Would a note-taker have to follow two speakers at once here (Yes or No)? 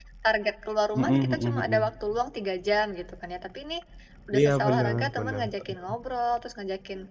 Yes